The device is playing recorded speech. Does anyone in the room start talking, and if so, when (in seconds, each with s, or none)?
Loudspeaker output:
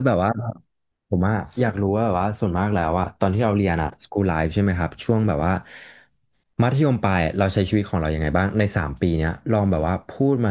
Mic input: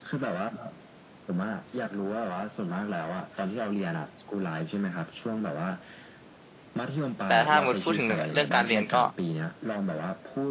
7.2 s